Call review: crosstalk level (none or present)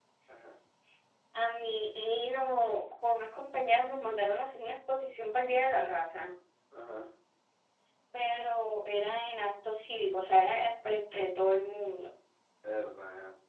none